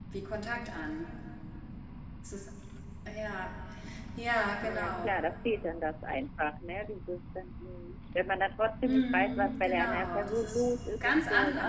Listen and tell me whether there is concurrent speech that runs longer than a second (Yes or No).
Yes